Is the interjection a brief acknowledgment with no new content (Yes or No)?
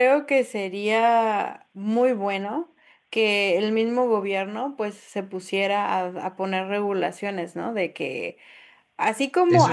Yes